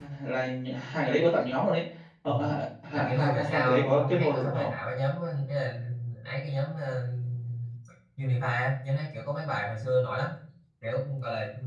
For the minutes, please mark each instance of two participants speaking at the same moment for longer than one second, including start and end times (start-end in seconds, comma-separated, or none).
2.9-4.7